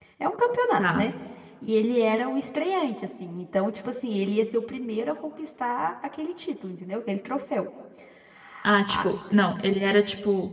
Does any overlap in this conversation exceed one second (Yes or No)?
No